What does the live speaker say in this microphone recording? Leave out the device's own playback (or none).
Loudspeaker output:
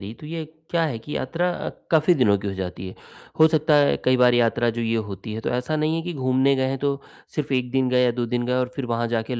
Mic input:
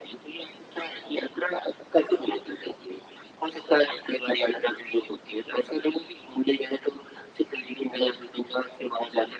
none